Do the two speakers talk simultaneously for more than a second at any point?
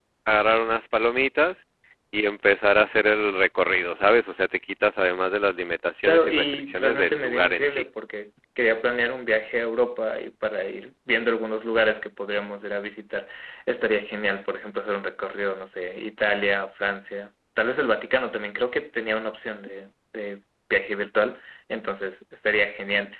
Yes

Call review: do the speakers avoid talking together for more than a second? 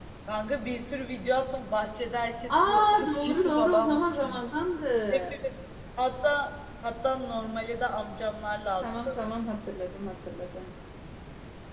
No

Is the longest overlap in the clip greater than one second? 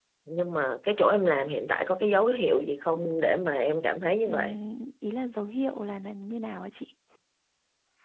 No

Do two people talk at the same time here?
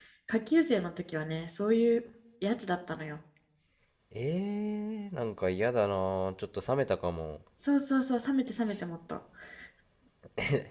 No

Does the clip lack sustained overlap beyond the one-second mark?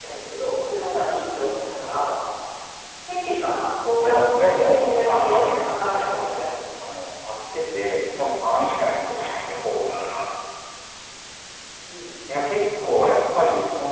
No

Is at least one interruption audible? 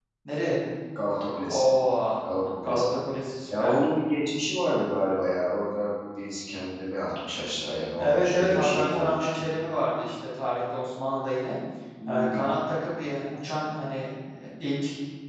Yes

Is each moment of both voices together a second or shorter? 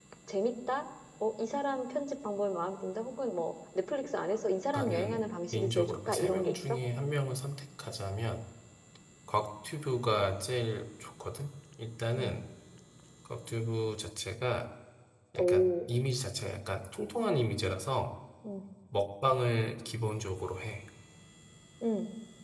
No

